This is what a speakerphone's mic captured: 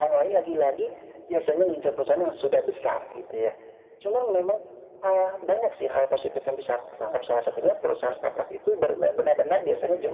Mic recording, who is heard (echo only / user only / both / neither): echo only